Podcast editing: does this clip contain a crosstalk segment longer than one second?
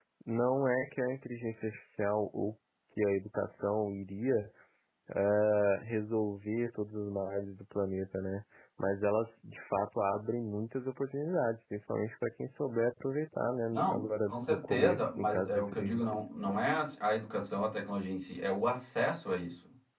Yes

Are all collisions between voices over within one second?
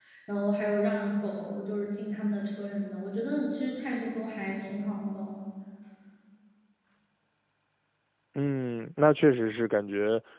Yes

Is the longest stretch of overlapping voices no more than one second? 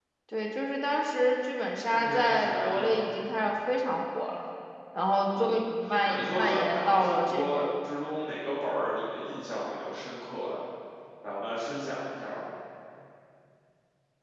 No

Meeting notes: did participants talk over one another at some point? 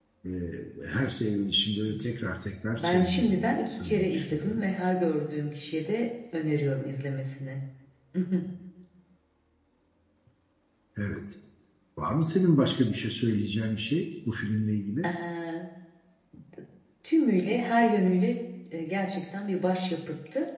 Yes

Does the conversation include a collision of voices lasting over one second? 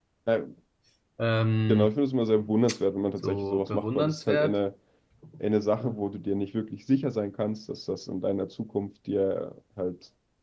Yes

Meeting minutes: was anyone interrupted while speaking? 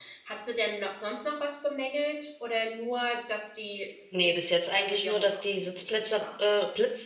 Yes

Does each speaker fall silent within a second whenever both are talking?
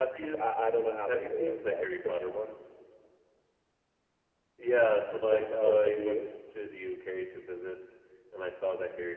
No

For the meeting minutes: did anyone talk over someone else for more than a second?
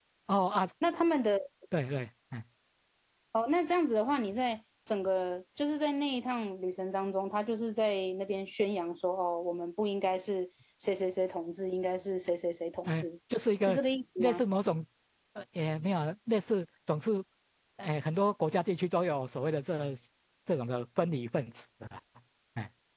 No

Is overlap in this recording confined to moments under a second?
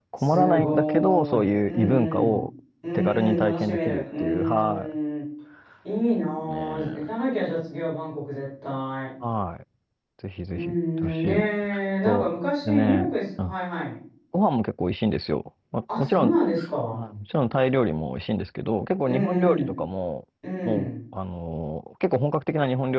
No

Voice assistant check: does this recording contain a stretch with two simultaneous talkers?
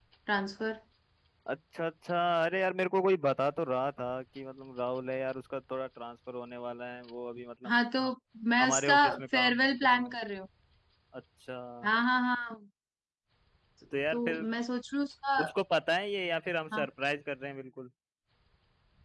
Yes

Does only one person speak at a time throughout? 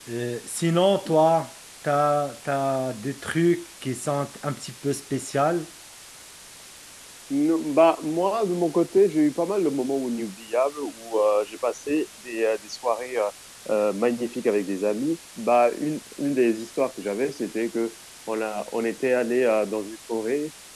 Yes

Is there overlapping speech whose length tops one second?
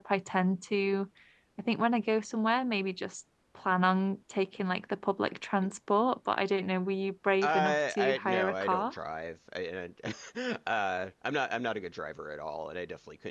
Yes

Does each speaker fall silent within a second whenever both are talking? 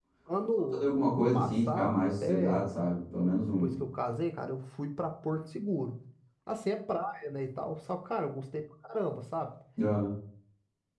No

